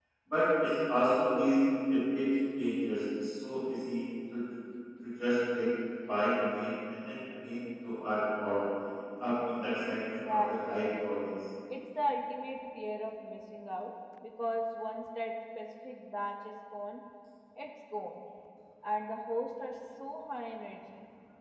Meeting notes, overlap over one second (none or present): present